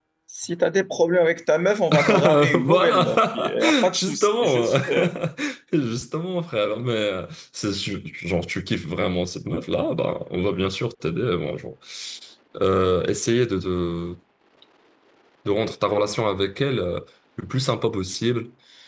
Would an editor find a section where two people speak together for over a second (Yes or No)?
Yes